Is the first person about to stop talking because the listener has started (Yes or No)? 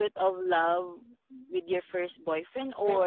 No